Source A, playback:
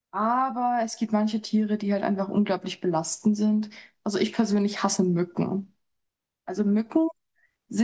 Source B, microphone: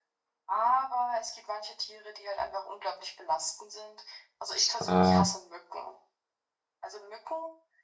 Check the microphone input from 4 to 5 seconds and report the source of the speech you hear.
both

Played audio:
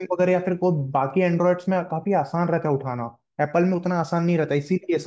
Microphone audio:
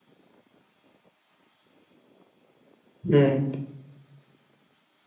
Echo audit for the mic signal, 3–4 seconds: user only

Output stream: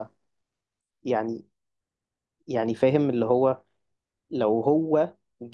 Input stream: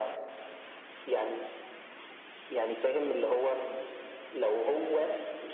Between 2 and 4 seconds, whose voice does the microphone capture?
echo only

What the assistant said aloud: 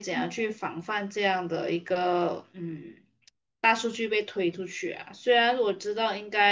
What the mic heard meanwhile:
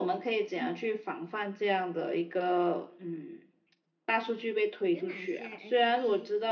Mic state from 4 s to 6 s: both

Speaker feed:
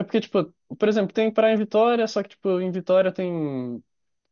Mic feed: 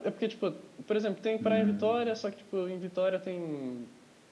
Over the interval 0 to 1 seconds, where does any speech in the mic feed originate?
echo only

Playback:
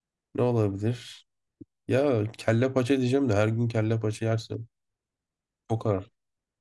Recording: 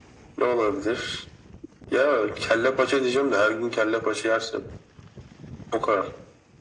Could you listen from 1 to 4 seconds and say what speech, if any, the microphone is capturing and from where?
echo only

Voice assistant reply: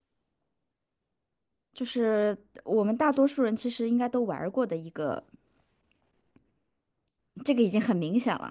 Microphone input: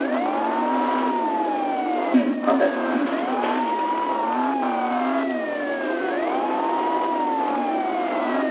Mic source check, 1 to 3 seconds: user only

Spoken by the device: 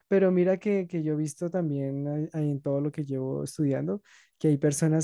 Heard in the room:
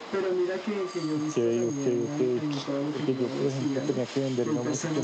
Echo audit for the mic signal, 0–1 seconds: echo only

